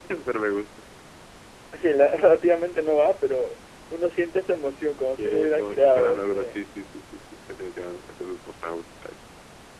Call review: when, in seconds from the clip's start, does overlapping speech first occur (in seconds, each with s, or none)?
5.2 s